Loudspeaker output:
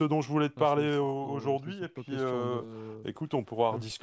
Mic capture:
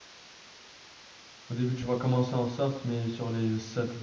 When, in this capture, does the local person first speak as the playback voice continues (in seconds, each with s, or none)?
1.5 s